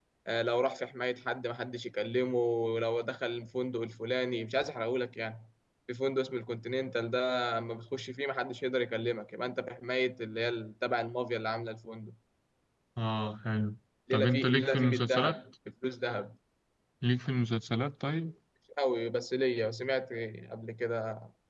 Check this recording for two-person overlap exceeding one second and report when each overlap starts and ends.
14.1-15.3

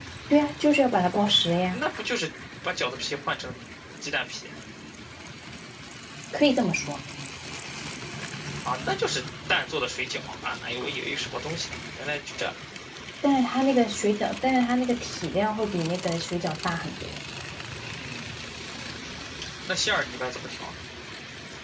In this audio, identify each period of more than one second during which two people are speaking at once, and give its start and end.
none

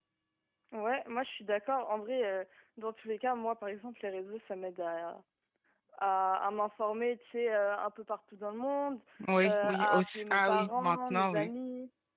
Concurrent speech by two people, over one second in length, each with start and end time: 9.4-11.5

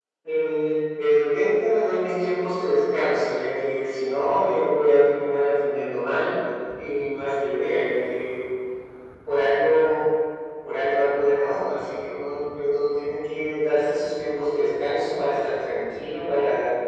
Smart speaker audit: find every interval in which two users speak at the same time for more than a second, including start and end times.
none

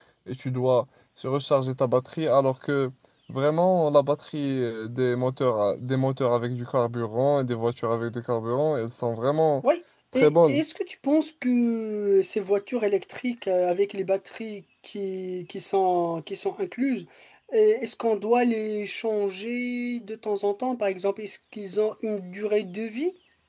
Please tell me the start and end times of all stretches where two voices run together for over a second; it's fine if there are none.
none

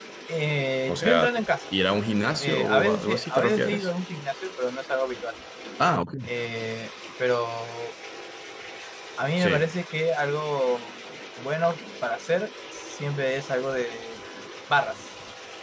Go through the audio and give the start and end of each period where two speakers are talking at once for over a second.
2.4-3.9

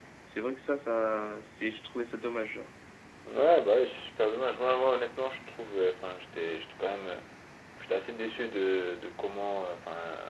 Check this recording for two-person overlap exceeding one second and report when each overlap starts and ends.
none

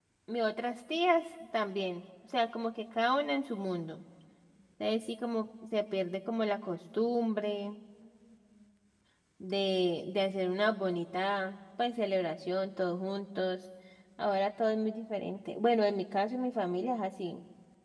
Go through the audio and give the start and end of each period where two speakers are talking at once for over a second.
none

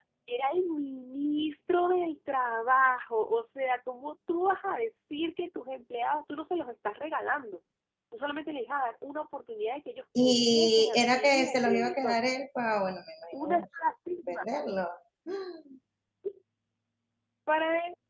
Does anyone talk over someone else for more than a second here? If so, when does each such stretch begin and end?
10.2-12.2

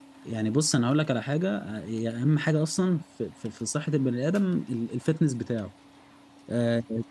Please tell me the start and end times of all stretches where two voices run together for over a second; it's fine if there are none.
none

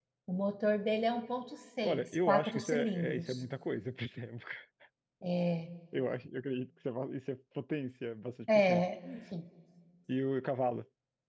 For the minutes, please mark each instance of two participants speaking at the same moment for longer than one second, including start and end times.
1.8-3.4

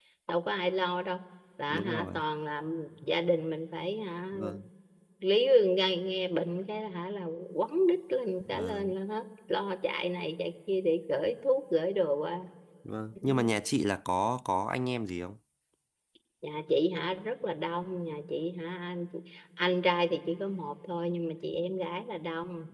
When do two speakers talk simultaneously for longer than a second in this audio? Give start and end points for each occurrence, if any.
none

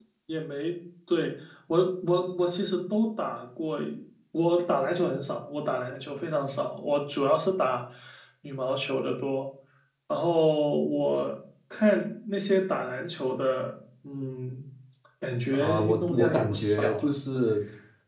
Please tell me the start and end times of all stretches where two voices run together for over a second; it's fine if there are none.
15.5-17.1

